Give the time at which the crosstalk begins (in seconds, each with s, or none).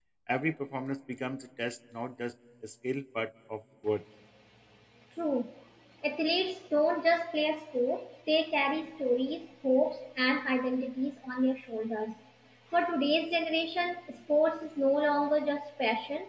none